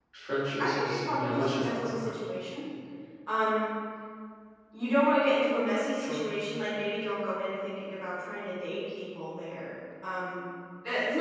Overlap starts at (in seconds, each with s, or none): 0.6 s